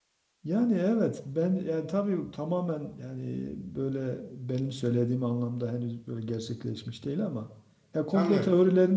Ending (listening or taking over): listening